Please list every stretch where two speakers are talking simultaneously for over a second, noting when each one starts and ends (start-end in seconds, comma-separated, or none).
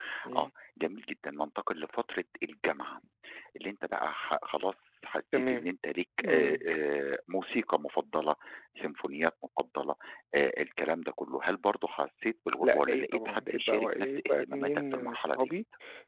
12.6-15.4